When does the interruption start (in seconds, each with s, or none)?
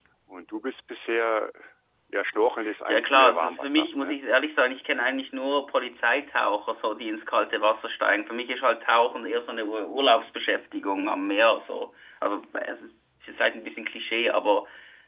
2.9 s